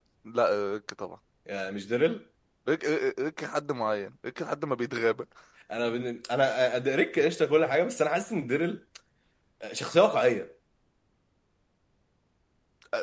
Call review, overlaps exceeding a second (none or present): none